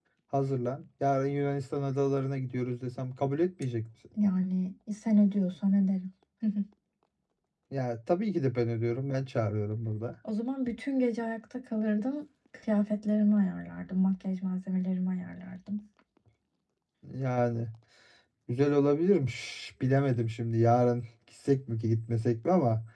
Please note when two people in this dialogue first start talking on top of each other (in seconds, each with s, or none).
none